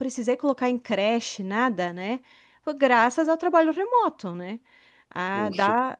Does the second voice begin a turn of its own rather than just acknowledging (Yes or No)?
No